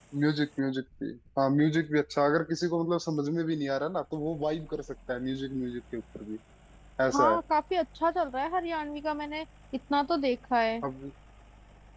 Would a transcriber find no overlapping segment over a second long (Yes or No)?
Yes